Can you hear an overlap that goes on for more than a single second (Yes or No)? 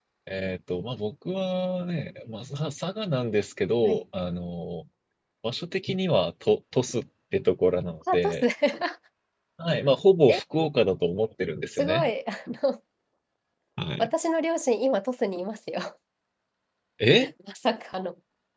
No